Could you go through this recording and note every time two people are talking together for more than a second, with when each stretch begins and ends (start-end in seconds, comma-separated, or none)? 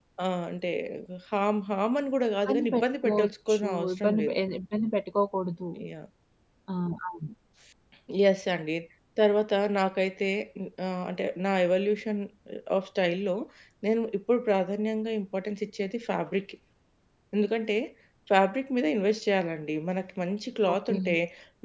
2.5-4.3